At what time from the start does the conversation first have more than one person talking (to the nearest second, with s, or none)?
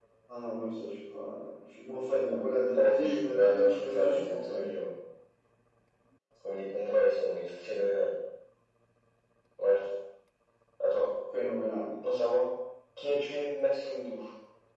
3 s